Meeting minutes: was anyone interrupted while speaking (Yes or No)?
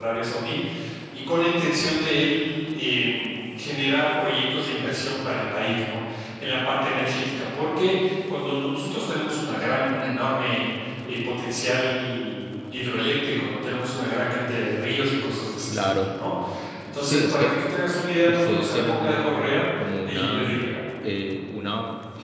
Yes